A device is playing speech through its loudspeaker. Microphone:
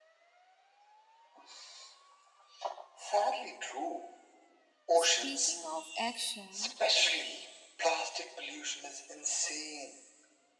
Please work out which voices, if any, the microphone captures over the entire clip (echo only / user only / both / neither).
both